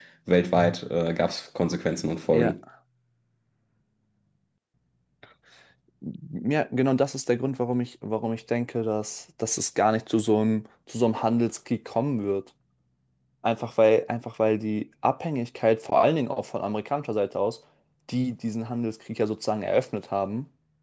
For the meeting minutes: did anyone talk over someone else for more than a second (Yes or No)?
No